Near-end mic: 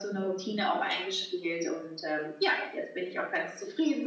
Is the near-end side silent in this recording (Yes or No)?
Yes